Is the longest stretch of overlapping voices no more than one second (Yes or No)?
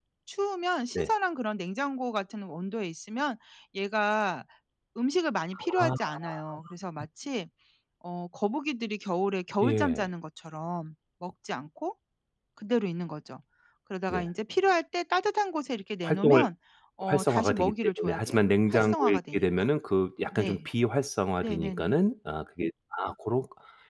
No